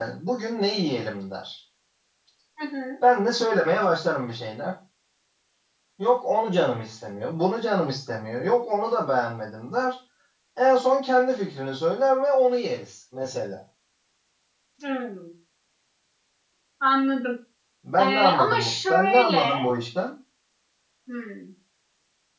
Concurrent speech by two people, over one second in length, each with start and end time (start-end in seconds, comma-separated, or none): 18.0-19.5